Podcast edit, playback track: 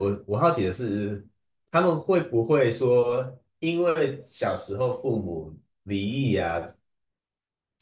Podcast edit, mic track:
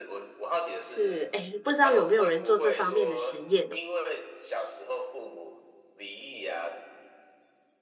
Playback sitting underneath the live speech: Yes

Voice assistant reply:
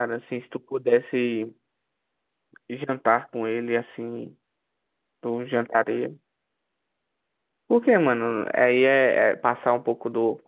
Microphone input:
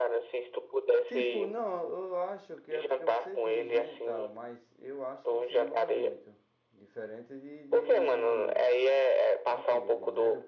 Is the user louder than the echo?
No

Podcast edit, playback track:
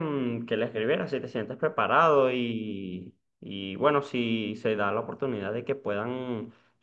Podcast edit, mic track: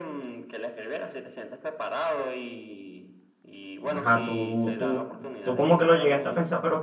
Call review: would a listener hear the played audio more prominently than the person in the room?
No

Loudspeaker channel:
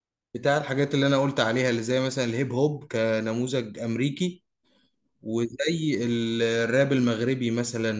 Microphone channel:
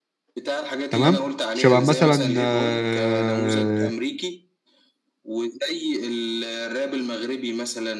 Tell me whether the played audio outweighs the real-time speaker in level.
No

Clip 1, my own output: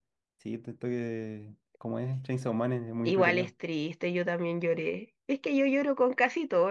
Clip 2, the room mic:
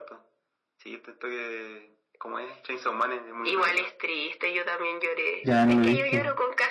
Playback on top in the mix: No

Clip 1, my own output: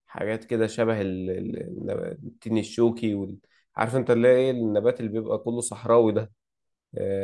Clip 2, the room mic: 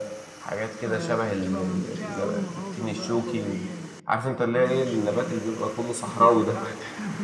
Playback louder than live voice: Yes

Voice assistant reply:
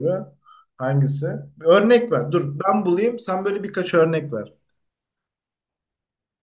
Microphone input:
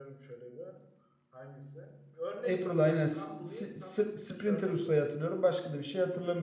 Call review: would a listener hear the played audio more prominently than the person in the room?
No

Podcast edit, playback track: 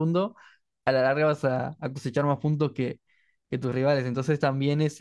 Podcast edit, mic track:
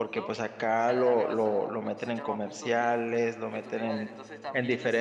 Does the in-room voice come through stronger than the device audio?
Yes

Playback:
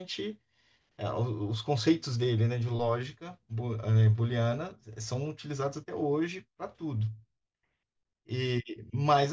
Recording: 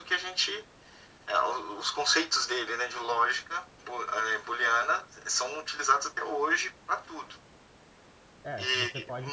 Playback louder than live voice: Yes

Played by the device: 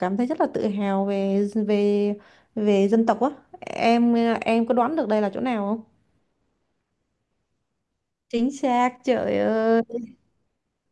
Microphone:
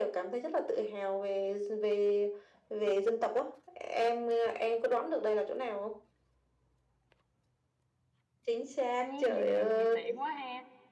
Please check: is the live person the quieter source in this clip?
Yes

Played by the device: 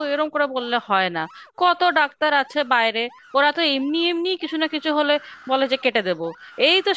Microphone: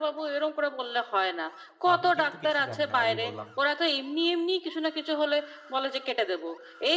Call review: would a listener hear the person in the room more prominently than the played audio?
No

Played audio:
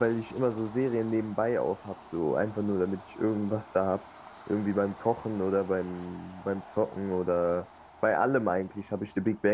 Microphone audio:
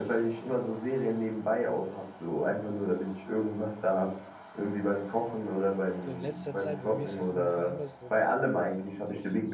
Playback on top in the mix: Yes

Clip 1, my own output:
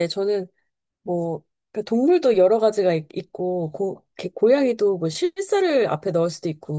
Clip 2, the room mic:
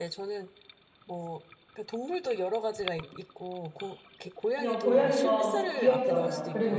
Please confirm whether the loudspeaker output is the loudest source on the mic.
No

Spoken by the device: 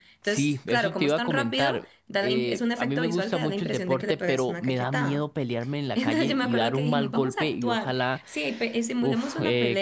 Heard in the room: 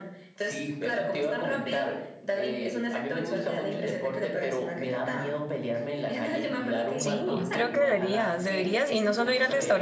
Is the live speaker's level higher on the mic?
Yes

